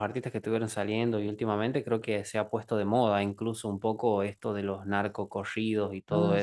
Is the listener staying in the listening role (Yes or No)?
Yes